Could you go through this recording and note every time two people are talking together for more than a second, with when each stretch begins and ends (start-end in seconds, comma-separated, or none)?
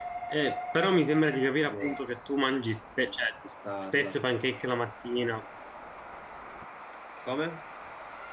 none